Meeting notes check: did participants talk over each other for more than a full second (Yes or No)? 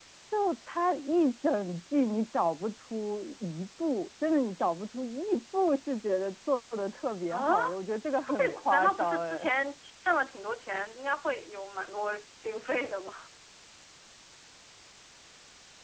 Yes